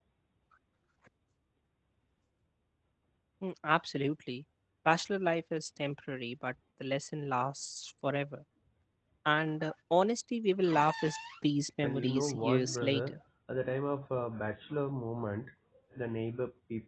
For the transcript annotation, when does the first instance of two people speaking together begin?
11.8 s

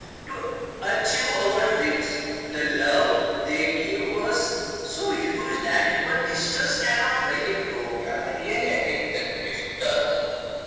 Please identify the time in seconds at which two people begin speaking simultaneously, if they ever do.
none

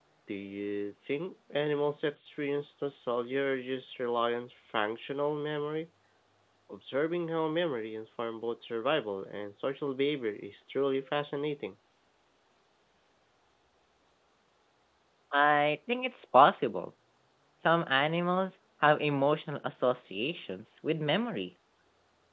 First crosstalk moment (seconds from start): none

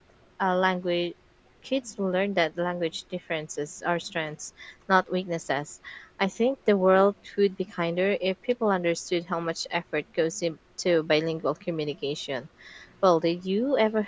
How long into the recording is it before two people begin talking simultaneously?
none

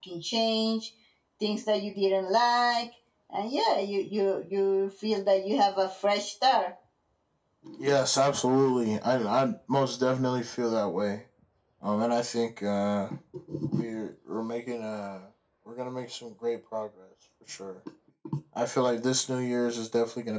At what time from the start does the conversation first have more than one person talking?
none

